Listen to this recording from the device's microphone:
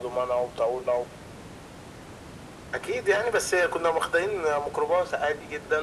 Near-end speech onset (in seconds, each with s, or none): none